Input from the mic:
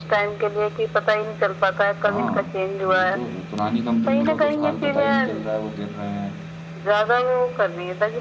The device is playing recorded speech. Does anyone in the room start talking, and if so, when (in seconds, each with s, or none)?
2.1 s